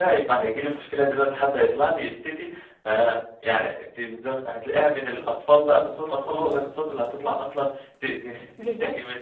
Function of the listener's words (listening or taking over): taking over